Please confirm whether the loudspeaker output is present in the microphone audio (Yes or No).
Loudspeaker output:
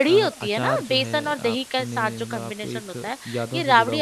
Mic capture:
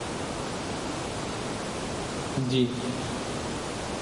No